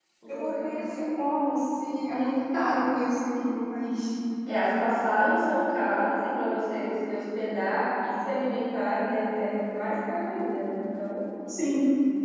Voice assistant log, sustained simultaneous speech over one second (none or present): none